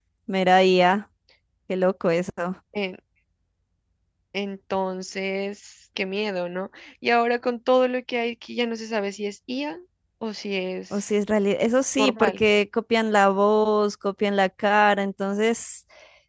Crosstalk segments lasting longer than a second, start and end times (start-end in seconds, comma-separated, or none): none